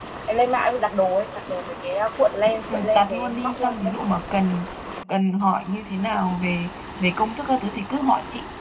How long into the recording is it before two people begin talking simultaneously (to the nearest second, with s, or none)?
3 s